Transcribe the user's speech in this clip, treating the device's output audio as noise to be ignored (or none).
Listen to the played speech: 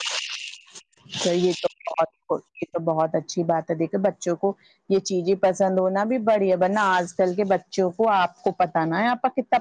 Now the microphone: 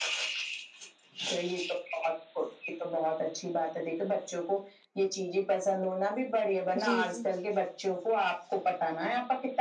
جی جی